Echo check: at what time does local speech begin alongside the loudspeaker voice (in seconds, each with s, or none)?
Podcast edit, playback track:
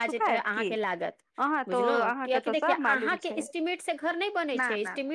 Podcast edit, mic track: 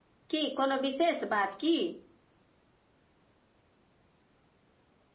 0.3 s